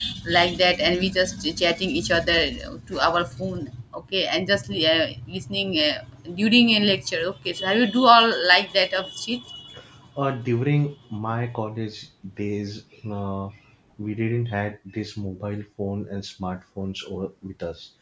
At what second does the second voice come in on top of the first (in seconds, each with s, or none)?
none